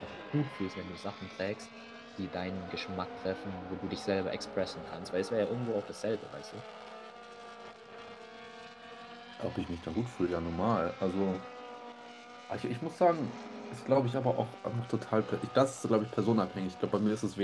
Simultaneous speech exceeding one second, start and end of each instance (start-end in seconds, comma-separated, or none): none